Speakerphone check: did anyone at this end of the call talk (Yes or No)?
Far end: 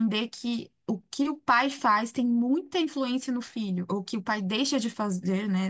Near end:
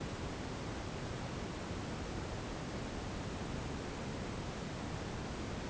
No